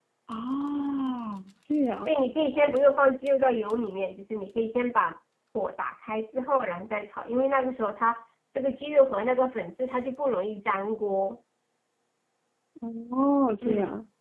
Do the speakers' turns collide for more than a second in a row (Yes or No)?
No